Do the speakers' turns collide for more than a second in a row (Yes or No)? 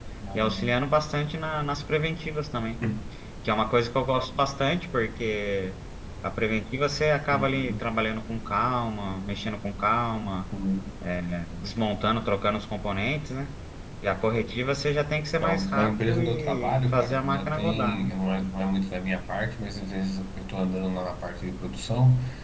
Yes